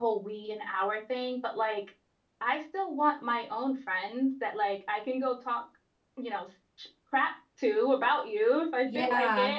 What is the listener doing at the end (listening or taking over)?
listening